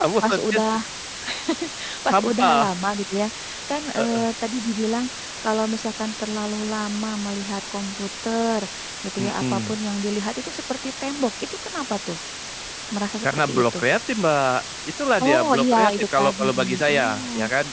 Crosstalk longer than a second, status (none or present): present